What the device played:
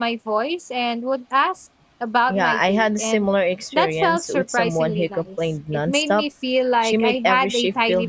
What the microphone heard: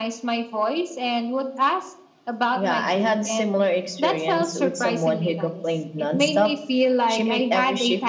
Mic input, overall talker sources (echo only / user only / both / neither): echo only